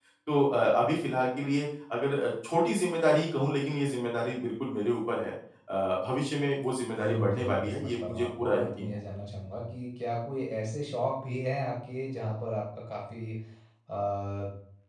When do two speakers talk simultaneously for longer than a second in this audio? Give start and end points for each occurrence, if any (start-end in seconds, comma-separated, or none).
7.0-8.9